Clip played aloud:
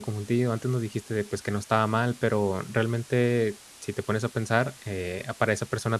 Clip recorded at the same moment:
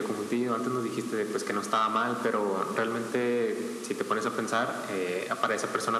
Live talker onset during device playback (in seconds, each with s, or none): none